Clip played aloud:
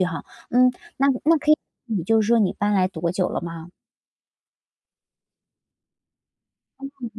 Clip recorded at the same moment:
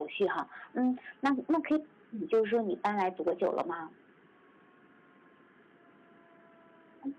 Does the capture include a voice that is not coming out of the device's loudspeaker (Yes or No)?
No